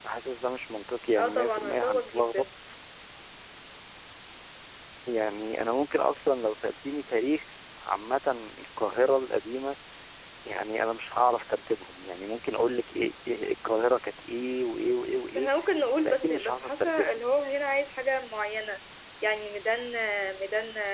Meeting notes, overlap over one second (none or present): present